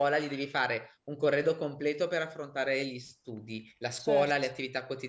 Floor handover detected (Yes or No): No